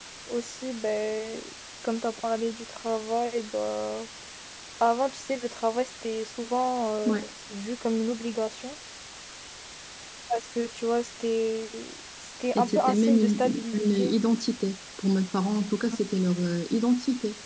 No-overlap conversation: No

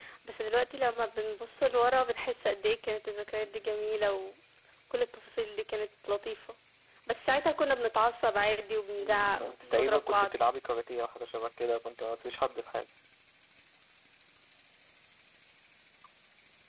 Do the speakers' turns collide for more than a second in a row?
Yes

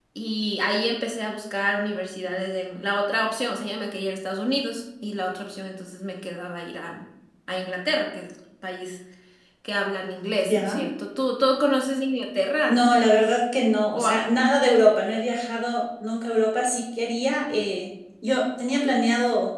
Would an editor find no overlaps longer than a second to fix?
Yes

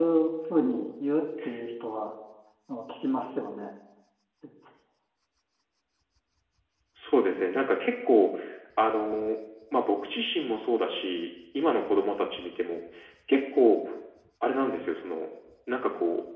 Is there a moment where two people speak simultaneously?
No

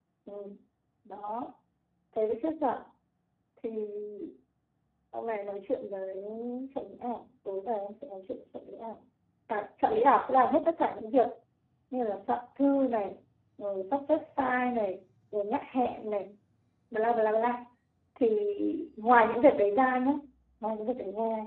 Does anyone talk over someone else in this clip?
No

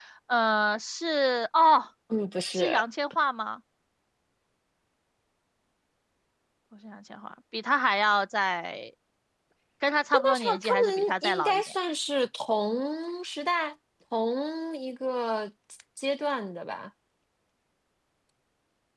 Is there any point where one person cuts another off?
Yes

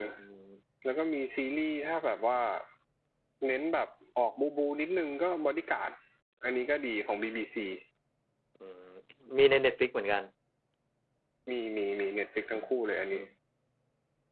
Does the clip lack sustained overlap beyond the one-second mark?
Yes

